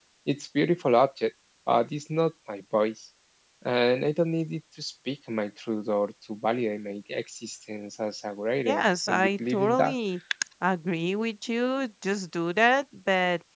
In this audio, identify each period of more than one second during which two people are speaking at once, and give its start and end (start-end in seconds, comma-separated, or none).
8.7-9.9